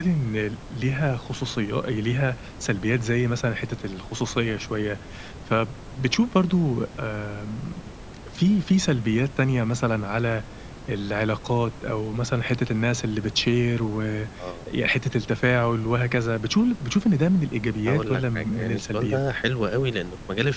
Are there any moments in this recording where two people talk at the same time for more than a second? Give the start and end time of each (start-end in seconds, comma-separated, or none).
17.9-19.2